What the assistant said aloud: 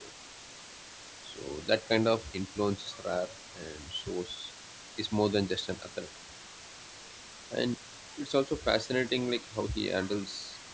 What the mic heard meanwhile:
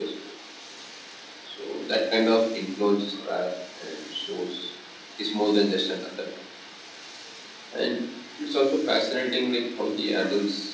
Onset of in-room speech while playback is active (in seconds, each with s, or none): none